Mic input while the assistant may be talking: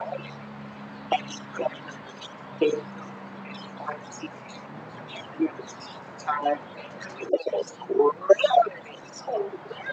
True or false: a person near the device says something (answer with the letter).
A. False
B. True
A